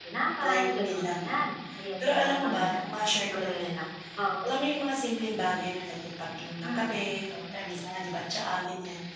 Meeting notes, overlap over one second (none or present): present